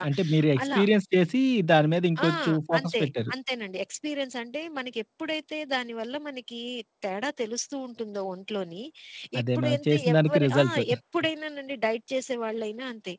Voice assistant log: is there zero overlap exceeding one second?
No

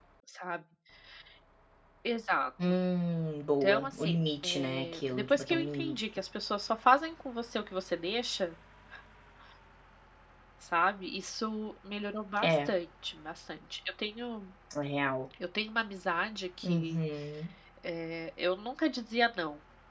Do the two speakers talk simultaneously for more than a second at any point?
Yes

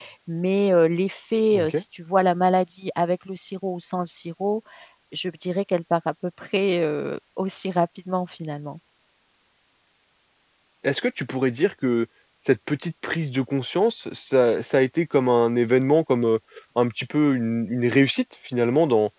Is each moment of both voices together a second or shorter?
Yes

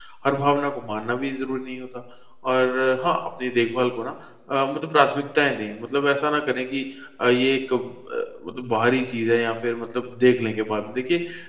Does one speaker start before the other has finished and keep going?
No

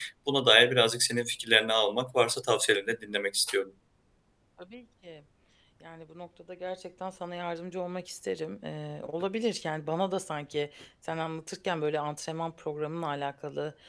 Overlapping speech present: No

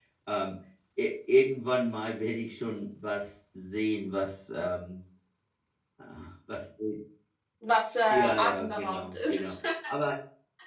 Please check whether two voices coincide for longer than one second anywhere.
Yes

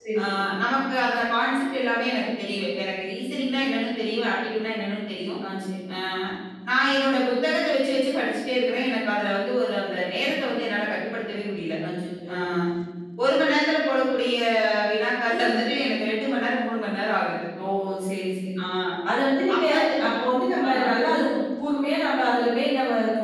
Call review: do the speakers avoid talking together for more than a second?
Yes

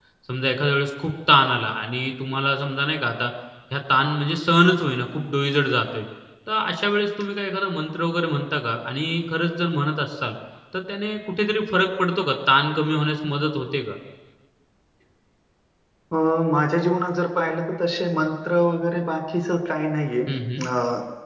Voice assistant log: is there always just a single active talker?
Yes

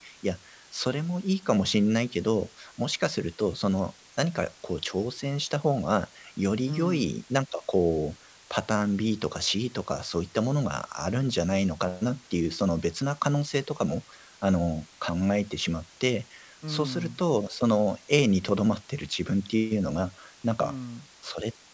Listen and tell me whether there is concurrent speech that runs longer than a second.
No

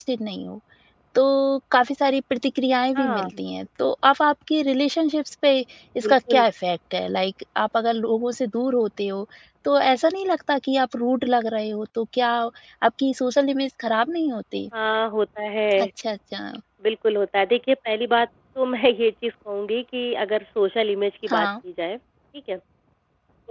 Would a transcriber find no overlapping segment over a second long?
Yes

